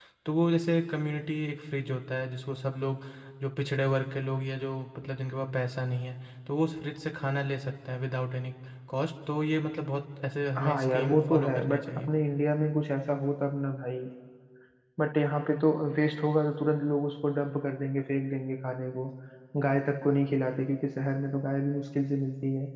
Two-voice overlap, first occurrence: 11 s

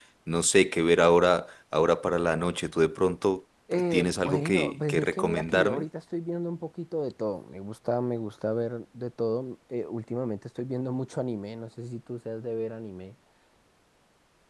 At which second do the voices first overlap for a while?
4 s

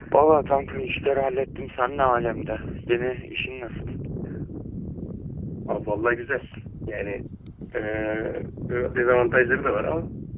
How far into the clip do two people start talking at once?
none

